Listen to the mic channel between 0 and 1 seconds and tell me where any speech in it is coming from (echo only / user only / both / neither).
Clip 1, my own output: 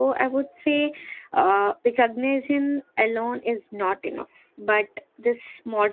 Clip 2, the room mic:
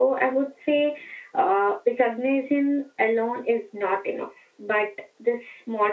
echo only